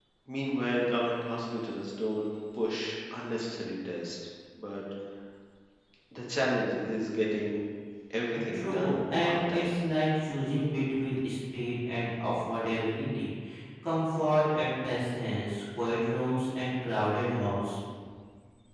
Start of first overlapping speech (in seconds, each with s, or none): 8.3 s